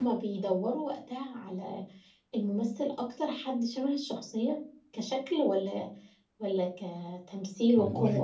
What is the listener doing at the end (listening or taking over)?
taking over